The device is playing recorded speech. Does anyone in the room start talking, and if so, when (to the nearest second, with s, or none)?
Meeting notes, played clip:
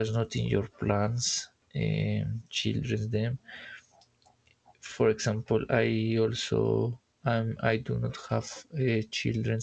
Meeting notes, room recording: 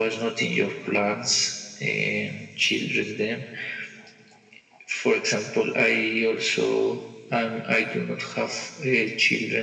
none